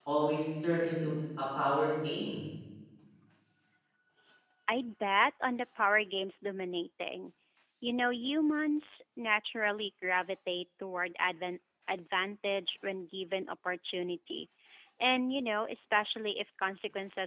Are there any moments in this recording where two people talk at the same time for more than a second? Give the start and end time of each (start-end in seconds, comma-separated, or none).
none